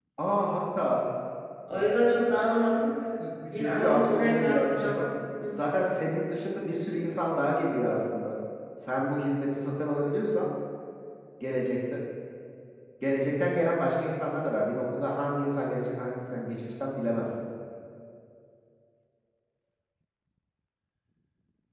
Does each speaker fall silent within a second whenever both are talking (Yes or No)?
No